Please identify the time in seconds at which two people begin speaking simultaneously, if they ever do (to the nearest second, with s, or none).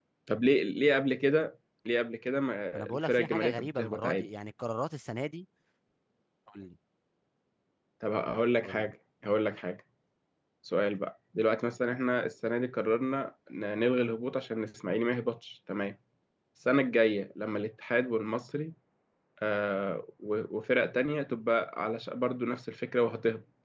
3 s